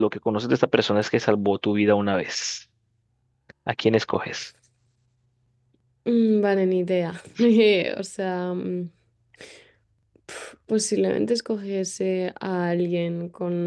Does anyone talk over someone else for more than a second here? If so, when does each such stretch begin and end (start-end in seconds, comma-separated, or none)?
none